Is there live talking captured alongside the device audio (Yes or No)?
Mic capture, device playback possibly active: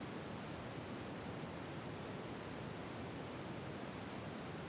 No